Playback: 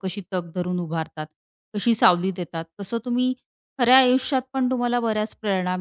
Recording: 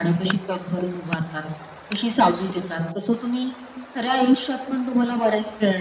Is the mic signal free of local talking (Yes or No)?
Yes